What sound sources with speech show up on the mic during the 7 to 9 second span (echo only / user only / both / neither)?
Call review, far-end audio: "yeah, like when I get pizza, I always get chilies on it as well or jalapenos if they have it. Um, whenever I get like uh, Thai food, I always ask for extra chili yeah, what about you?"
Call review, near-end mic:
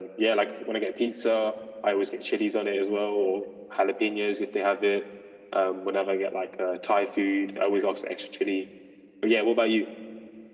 echo only